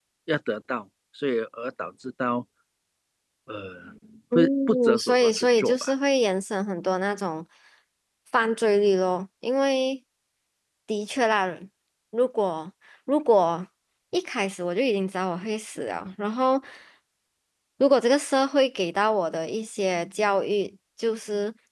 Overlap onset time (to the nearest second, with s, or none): 4 s